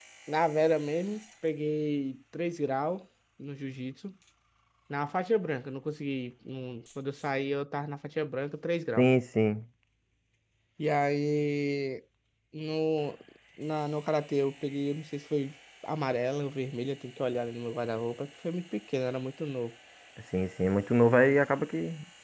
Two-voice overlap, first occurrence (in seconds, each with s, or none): none